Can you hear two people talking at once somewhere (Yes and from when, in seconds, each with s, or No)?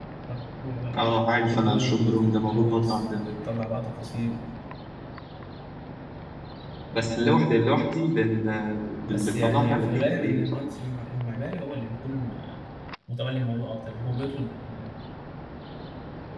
Yes, from 1.5 s